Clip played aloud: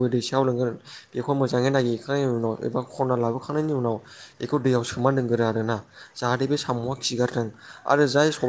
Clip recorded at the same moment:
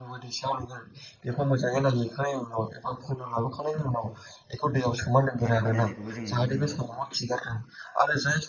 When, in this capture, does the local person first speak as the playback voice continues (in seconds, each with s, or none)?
5.4 s